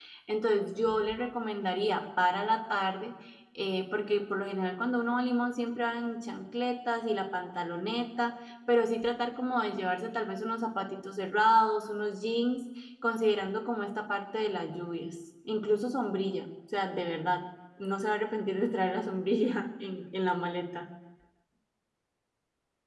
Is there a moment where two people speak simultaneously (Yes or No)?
No